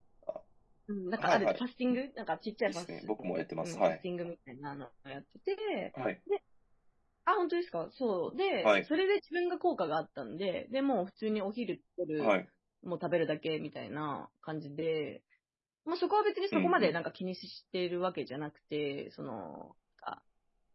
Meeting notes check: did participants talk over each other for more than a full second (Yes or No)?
No